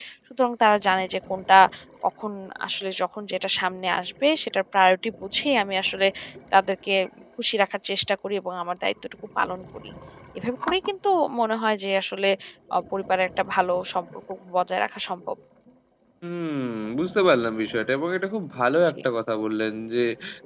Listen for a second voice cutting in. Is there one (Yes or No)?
No